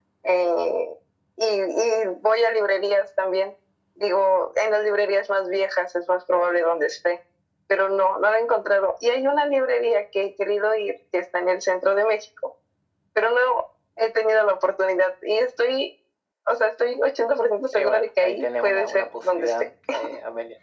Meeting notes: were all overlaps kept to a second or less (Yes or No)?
No